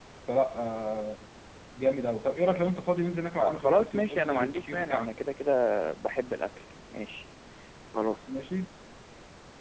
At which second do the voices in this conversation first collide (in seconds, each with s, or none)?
3.4 s